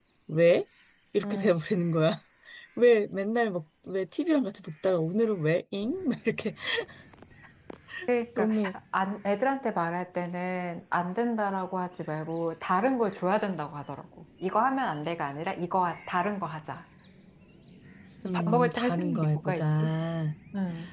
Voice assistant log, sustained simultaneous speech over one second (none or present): present